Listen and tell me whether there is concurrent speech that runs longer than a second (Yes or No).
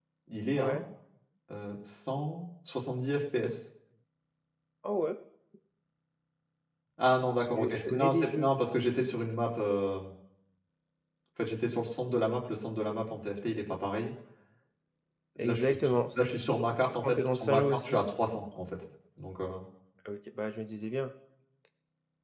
Yes